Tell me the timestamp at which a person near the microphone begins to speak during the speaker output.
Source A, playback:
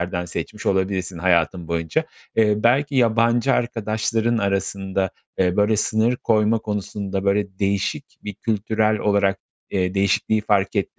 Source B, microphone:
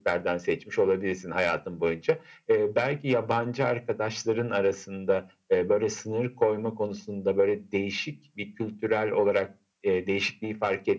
none

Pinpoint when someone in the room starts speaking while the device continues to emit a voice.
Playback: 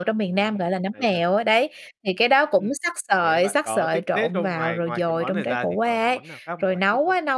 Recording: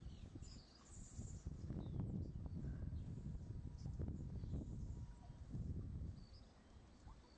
none

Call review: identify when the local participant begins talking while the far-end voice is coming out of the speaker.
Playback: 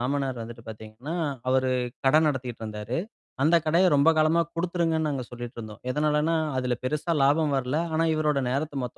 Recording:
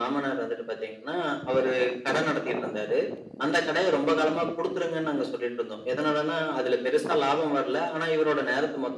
none

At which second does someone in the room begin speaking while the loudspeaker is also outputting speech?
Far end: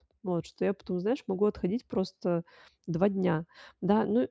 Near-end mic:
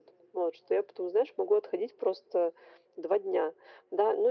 none

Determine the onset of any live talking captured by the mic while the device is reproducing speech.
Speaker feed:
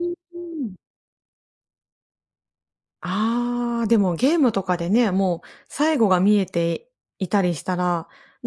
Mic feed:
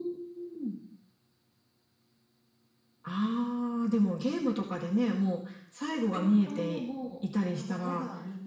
6.1 s

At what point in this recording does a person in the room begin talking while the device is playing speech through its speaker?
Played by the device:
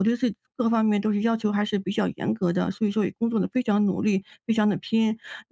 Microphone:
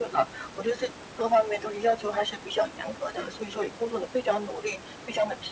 none

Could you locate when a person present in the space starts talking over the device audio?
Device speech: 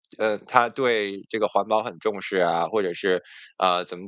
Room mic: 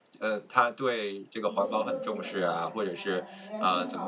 1.4 s

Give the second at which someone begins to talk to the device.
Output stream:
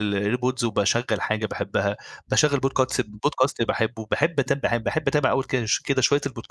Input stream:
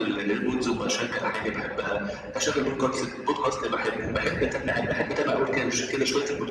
none

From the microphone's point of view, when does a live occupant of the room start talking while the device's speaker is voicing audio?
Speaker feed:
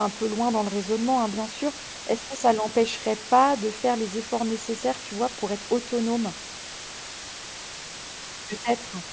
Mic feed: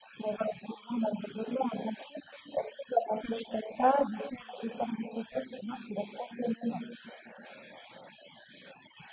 none

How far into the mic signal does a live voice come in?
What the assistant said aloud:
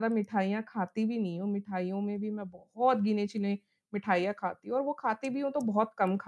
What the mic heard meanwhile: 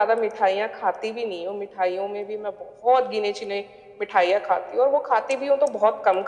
none

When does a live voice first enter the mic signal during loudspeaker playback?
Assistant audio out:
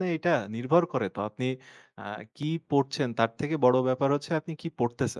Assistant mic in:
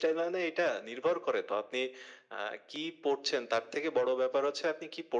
none

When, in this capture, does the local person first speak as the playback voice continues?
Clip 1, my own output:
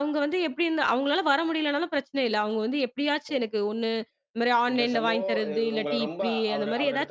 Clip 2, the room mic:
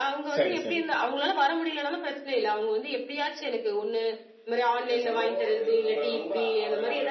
0.3 s

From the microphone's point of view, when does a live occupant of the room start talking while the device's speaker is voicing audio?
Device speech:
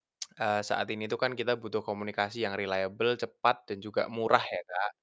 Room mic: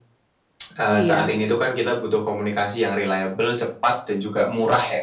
0.9 s

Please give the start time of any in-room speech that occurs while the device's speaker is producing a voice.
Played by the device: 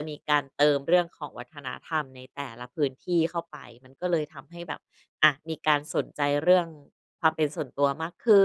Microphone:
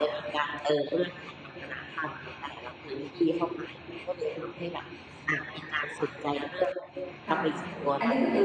7.2 s

